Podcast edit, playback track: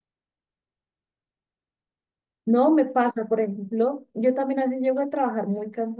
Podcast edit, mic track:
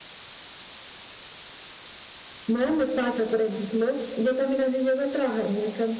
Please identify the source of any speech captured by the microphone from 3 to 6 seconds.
echo only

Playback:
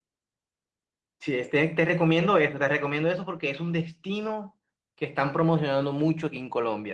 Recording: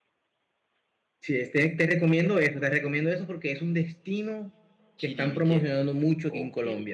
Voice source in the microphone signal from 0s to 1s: neither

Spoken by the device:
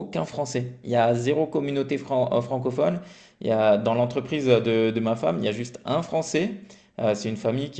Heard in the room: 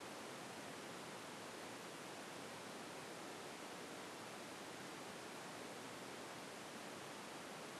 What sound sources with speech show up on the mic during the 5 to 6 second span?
neither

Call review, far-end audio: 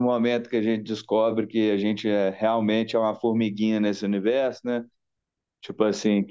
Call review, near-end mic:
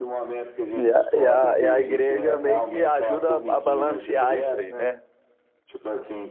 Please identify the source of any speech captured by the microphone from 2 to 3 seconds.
both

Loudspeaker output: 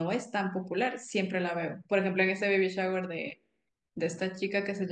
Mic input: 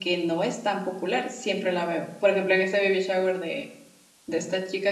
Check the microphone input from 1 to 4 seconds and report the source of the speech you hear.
echo only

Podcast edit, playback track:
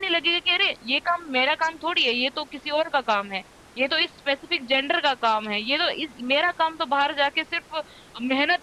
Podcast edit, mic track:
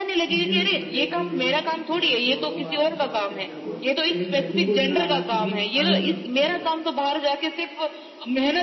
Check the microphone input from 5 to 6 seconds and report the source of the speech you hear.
both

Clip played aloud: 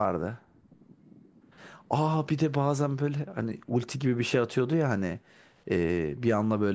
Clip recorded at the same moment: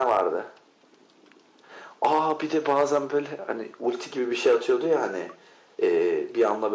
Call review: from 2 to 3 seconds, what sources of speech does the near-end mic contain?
echo only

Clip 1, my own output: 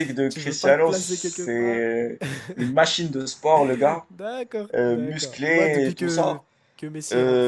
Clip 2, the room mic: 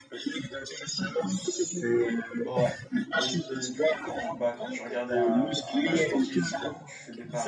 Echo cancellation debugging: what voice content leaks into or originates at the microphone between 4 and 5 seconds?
both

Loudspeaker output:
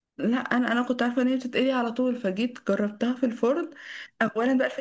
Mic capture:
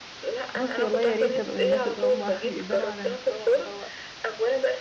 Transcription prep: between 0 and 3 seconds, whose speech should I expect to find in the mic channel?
both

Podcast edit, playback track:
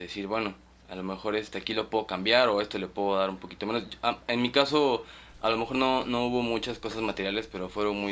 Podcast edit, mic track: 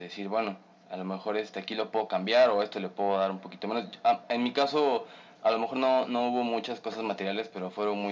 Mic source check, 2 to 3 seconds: echo only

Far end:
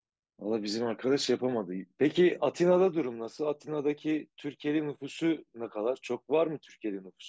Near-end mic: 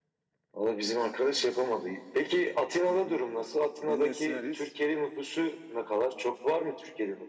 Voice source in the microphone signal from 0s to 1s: echo only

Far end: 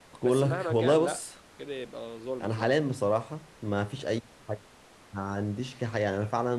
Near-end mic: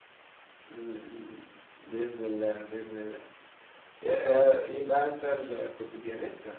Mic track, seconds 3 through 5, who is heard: user only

